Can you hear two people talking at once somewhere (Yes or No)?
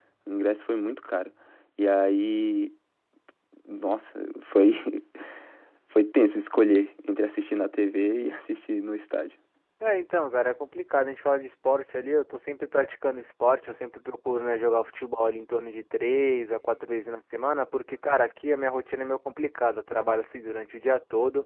No